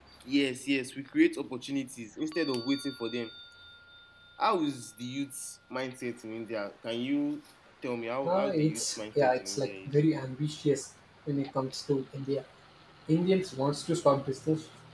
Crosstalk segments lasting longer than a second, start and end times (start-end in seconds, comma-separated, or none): 8.2-9.9